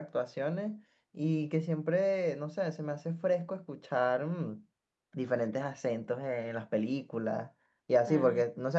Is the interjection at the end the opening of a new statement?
No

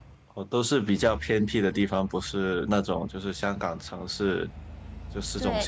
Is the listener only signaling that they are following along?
No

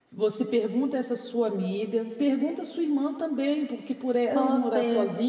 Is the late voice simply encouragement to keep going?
Yes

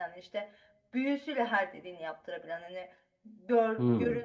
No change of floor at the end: Yes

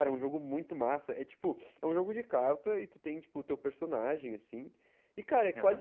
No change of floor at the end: Yes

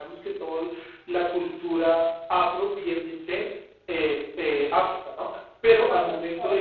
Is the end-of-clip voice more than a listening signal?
Yes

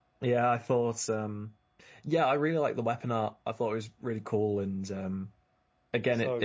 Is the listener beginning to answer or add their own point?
No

